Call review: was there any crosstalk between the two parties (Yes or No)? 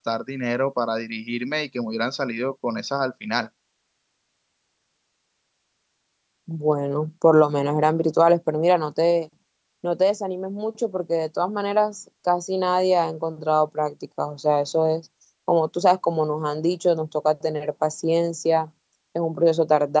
No